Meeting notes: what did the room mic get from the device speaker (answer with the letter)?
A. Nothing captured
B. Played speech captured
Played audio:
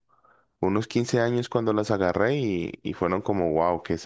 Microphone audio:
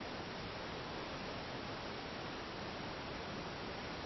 A